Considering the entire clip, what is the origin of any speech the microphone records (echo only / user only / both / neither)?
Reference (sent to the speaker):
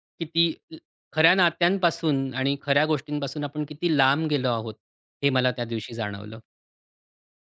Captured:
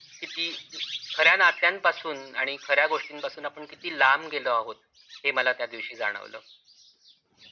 echo only